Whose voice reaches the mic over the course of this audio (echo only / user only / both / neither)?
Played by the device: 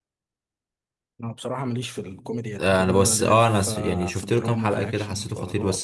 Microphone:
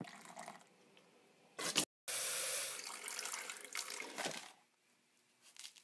neither